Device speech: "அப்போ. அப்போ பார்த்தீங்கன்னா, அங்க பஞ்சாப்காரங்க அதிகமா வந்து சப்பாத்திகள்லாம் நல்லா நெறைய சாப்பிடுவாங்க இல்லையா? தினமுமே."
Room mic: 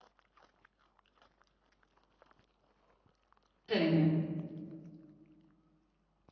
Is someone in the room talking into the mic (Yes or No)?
Yes